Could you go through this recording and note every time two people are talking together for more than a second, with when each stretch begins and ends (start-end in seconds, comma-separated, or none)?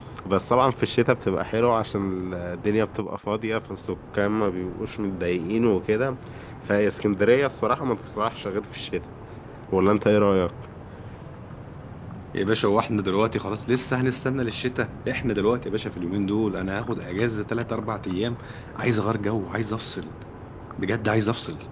none